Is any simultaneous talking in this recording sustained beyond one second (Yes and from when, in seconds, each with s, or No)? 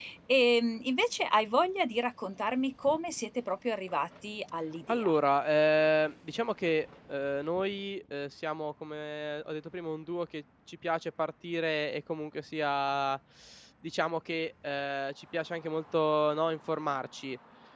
No